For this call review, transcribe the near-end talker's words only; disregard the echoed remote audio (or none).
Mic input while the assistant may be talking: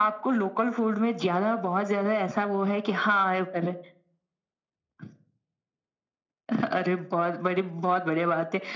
none